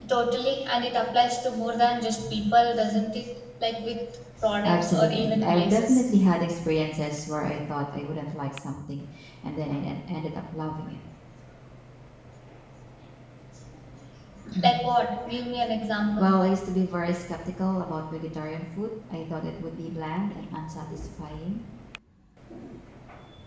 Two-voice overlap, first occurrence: 5 s

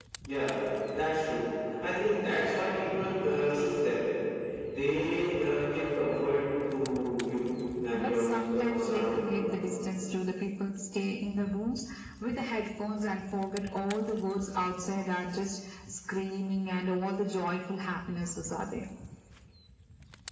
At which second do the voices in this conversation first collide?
8 s

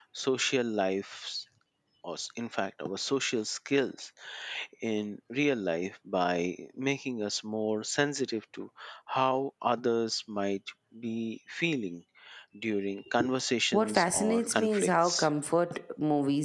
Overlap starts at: 14 s

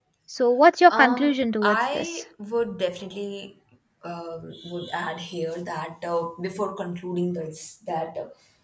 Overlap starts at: 1 s

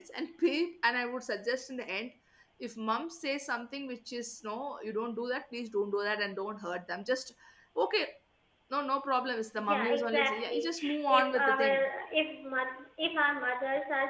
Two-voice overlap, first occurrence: 10 s

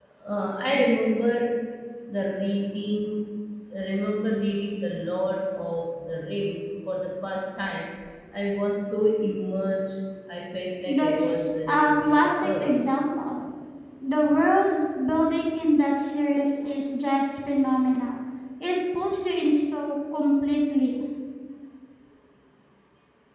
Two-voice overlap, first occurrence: 11 s

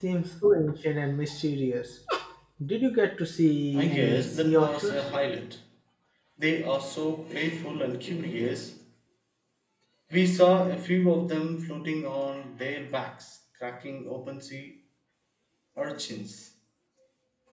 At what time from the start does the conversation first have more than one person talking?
4 s

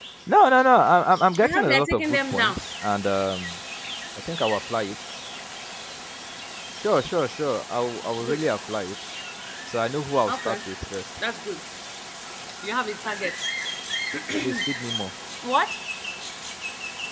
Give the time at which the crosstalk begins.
1 s

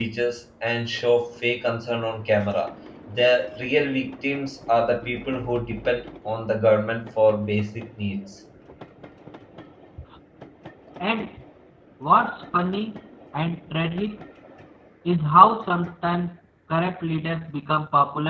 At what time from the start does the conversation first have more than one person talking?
none

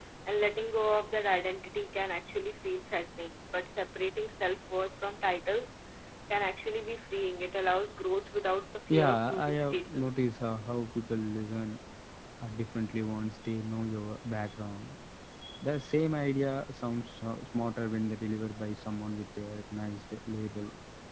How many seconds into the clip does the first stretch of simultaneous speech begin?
9 s

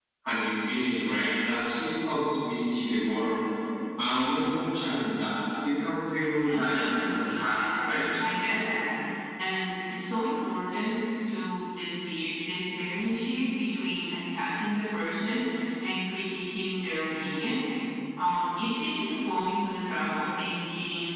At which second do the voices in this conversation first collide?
6 s

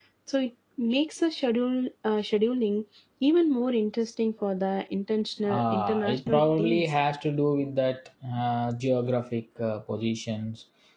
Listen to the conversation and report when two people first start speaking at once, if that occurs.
5 s

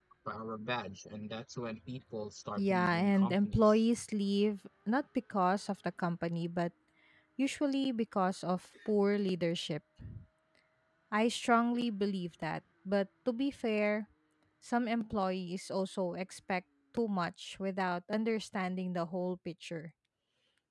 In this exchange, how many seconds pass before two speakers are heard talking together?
3 s

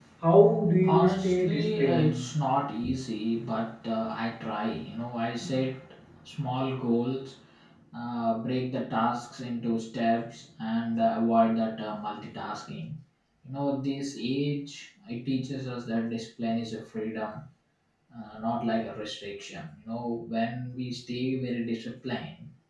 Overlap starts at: 1 s

